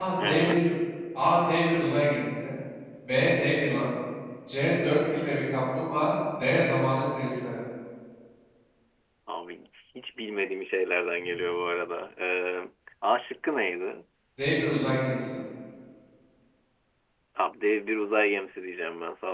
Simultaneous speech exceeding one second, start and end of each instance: none

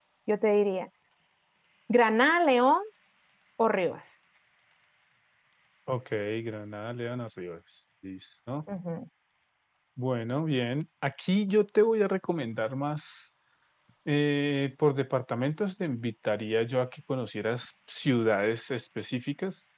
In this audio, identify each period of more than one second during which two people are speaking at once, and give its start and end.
none

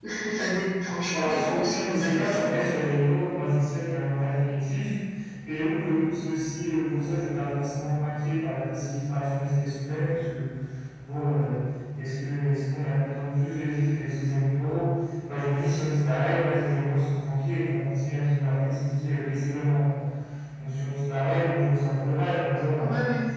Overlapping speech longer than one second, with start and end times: 1.1-2.7

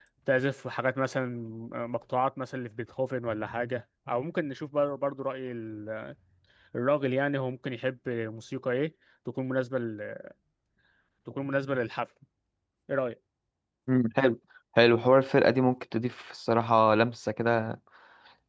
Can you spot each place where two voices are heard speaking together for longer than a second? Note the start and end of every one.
none

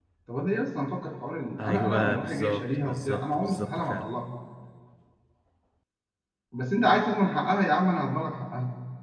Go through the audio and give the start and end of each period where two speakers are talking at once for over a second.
1.6-4.1

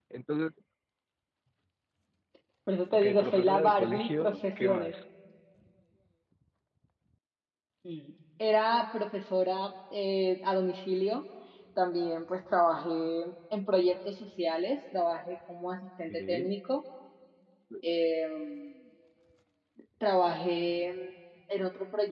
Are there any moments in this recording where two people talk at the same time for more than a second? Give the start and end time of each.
2.9-4.9

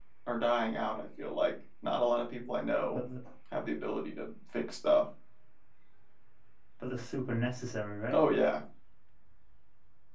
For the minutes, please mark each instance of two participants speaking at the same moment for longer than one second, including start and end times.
none

